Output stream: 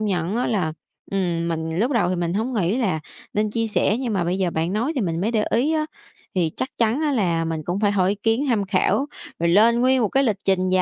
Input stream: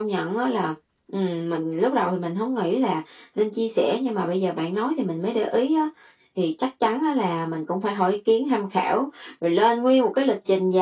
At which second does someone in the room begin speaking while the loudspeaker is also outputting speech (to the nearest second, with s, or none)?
none